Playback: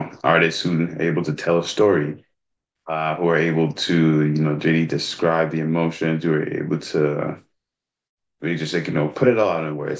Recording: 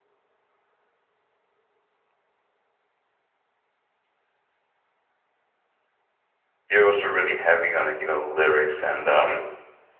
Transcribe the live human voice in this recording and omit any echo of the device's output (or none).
you're also really heavy on like, you know, lyrics and, um,